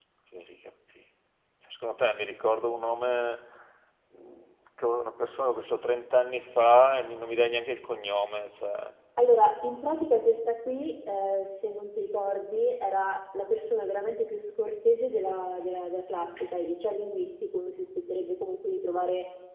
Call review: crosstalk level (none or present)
none